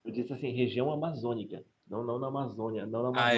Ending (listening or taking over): taking over